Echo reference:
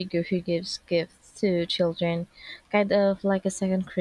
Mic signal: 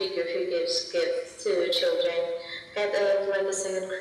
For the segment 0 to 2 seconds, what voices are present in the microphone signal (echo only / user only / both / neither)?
echo only